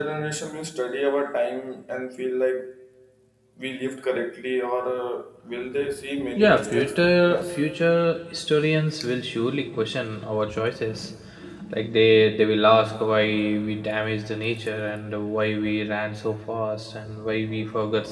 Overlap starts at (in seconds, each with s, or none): 6.4 s